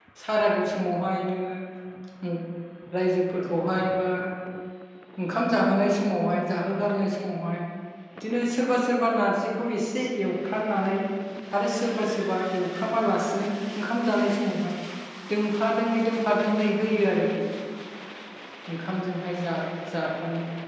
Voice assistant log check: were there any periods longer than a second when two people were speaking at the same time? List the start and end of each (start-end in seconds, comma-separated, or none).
none